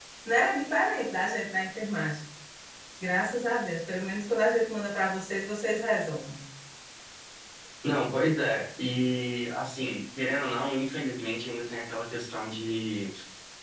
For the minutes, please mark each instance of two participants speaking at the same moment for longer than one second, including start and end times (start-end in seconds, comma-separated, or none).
none